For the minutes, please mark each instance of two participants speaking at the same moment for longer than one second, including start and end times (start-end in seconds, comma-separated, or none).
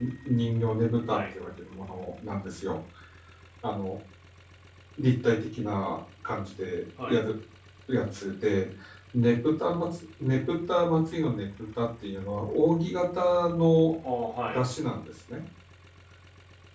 none